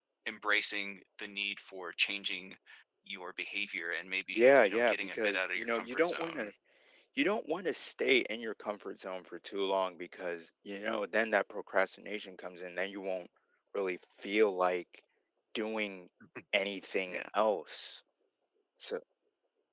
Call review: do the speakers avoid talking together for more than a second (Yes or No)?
No